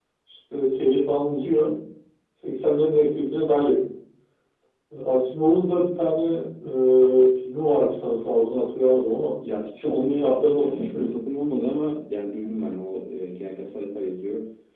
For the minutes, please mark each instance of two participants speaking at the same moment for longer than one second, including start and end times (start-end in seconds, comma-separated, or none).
9.8-11.2